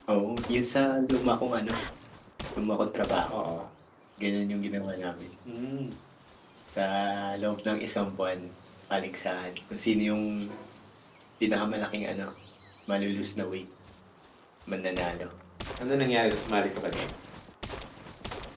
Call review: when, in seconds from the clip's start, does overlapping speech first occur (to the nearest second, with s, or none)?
none